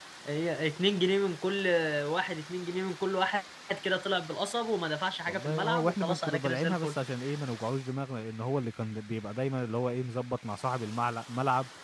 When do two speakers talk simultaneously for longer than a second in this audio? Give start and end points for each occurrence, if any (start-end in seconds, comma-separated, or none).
5.3-7.0